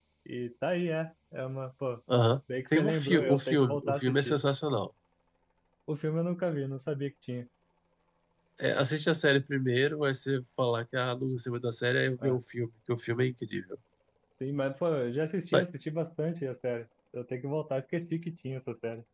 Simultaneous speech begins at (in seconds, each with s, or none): 2.7 s